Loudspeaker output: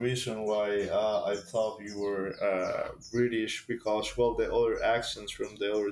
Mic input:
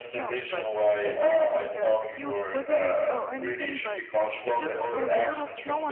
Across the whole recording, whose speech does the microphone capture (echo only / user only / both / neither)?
both